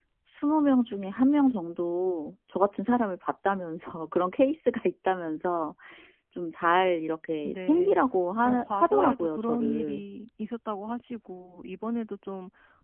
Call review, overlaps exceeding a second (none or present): present